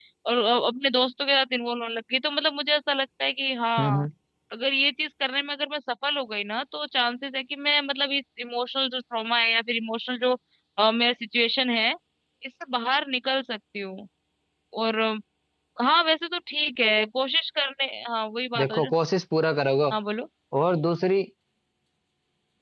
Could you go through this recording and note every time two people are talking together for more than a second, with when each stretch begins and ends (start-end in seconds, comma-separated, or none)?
none